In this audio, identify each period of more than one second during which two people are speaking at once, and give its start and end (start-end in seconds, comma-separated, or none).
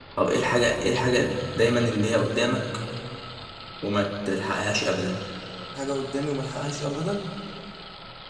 none